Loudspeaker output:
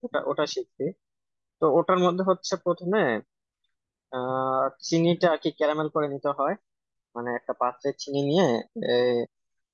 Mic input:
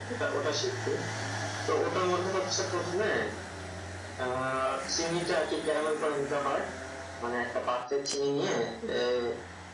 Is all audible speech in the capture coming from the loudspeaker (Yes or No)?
Yes